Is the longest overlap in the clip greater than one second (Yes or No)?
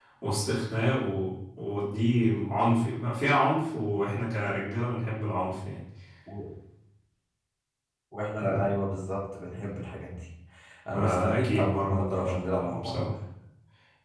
Yes